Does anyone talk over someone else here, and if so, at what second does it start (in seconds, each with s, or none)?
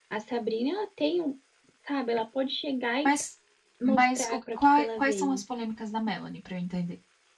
3.8 s